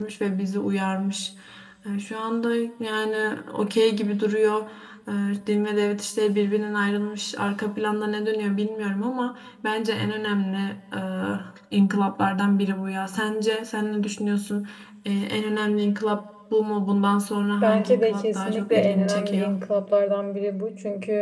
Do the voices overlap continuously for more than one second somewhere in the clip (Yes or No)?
Yes